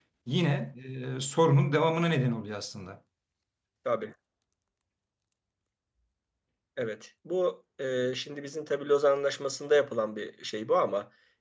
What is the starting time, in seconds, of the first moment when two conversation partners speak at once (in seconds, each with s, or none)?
none